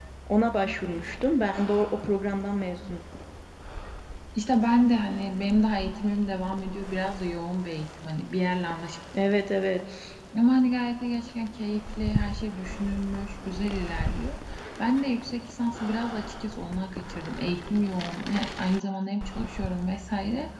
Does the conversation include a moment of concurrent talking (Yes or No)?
No